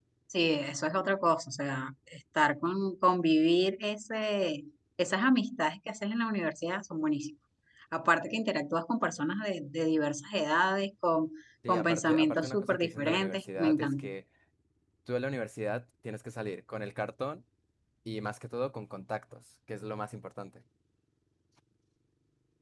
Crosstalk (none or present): present